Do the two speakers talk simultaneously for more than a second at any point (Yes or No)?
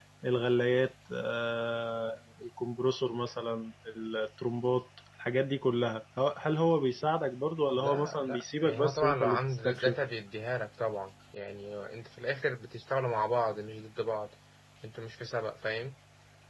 Yes